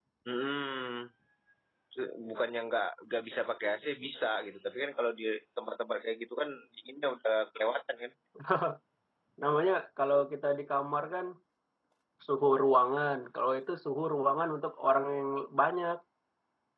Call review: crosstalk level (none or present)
none